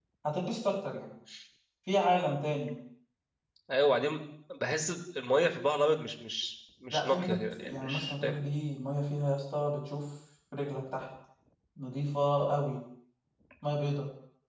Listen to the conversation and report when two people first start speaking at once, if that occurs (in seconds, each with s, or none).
6.9 s